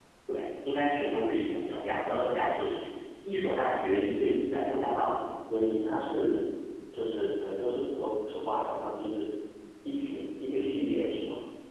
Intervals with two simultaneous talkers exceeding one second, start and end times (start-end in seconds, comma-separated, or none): none